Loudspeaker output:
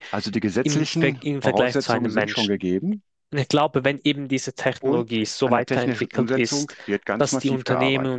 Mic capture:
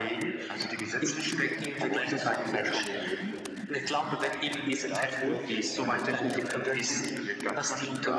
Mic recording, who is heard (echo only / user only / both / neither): both